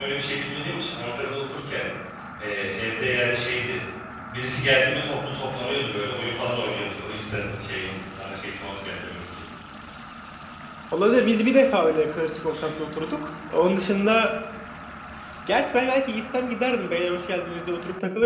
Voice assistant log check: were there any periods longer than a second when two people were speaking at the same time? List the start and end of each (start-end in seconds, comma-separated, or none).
none